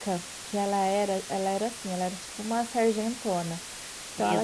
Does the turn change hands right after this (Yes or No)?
No